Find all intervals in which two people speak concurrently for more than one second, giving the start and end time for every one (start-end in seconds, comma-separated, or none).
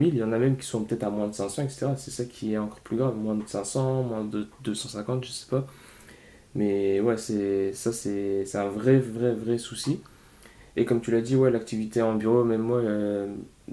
none